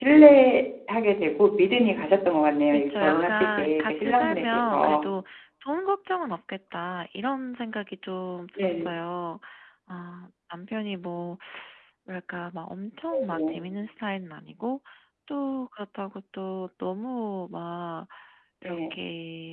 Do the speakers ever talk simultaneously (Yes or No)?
Yes